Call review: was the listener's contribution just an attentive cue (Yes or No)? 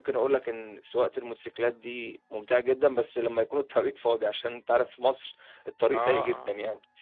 No